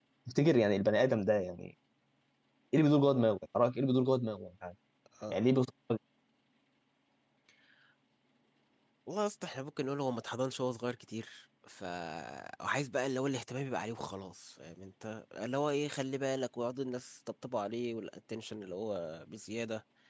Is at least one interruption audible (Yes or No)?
No